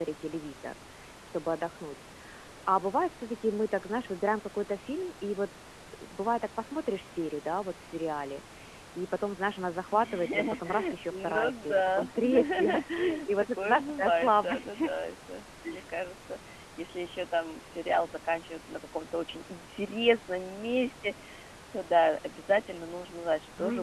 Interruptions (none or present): present